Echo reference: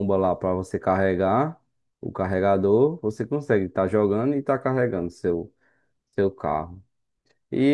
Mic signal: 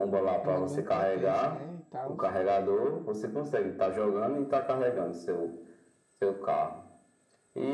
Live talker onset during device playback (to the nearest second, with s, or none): 0 s